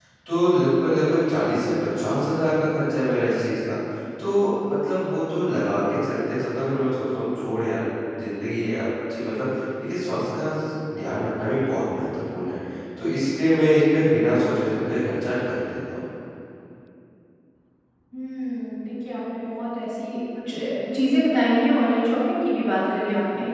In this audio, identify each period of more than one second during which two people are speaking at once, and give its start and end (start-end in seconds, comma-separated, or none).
none